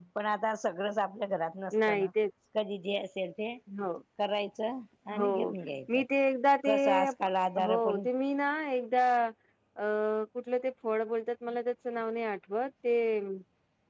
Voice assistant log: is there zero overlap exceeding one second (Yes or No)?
Yes